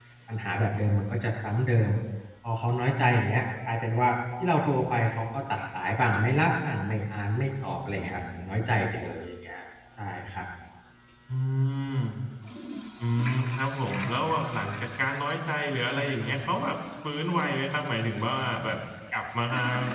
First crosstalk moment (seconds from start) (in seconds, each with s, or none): none